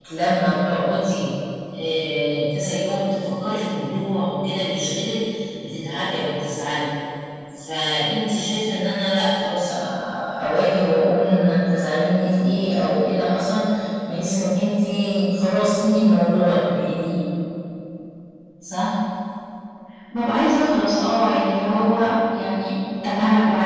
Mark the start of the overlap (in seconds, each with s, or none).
none